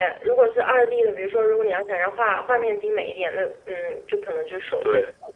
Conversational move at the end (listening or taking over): listening